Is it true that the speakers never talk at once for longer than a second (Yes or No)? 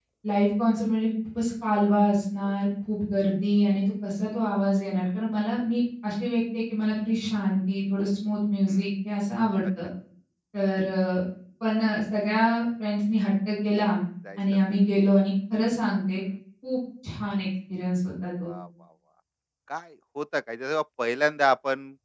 Yes